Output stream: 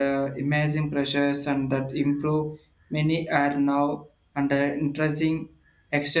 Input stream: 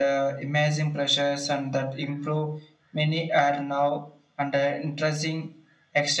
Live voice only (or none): none